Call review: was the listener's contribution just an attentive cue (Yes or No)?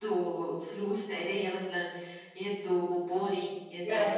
Yes